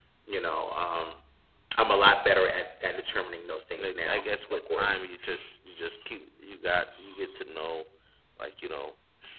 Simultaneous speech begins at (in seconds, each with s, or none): 3.8 s